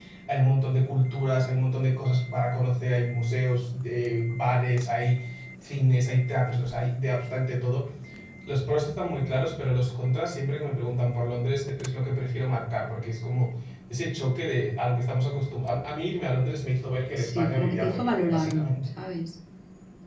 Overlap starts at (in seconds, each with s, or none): 17.2 s